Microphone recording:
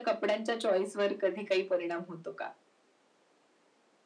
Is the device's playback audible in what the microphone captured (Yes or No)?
Yes